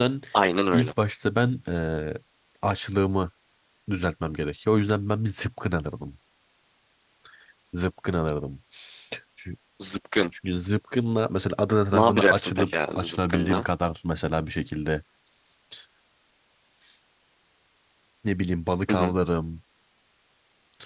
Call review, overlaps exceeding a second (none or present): present